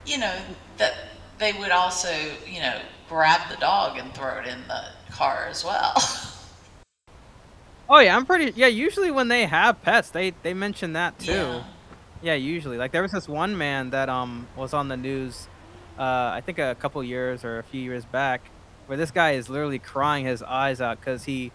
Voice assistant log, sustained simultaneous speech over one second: none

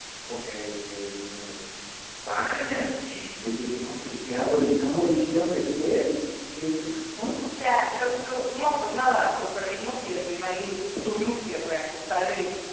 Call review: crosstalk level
none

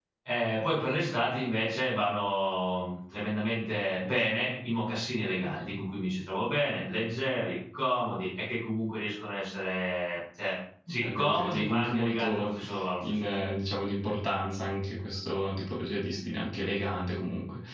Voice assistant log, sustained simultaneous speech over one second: present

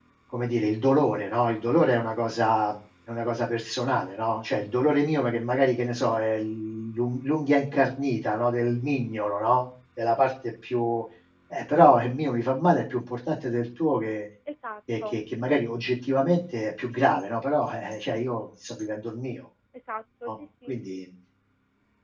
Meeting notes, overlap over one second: none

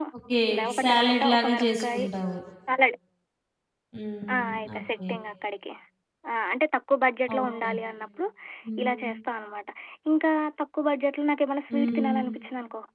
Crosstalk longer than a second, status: present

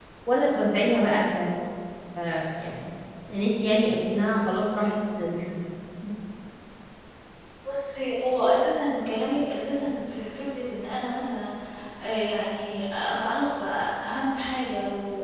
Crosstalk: none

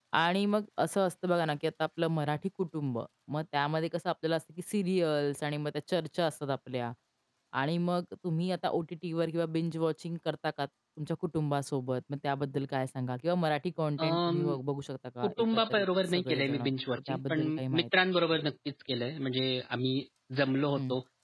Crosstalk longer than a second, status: present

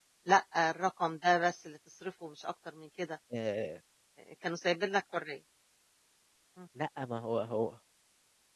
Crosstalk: none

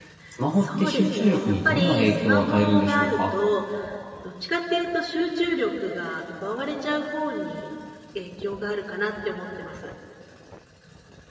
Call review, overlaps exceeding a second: present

